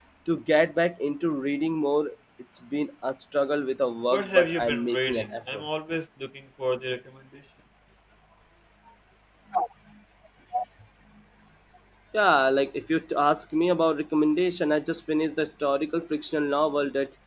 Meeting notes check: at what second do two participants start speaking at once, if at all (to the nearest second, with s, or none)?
4 s